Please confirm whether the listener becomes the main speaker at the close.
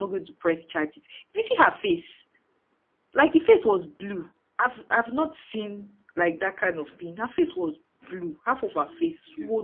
No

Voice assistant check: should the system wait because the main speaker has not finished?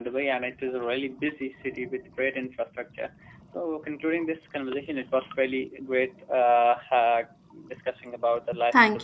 No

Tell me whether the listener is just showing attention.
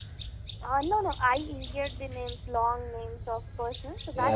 No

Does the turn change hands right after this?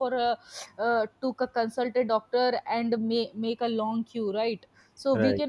No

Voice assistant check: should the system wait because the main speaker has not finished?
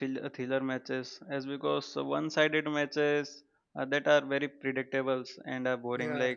Yes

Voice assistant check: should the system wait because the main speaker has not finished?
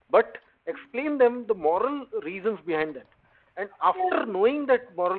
Yes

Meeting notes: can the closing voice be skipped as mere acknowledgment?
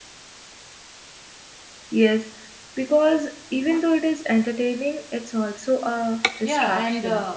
No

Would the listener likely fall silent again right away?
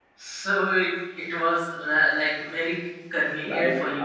No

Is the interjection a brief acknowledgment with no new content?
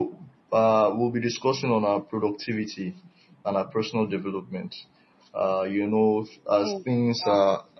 Yes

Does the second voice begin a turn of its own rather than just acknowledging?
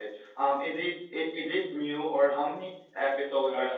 Yes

